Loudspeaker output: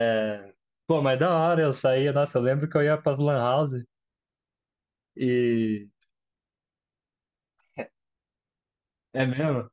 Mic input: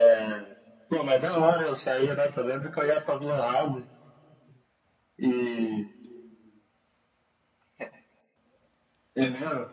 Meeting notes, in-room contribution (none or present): none